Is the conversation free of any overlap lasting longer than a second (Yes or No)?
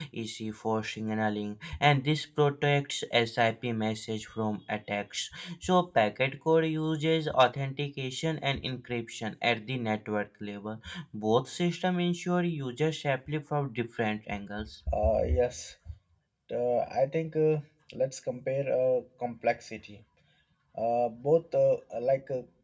Yes